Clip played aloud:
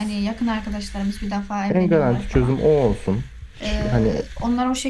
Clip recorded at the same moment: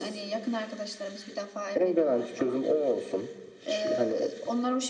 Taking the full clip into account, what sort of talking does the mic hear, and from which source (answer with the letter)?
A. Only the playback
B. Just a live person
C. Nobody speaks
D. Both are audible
A